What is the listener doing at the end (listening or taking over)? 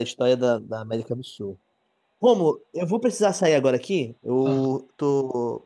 listening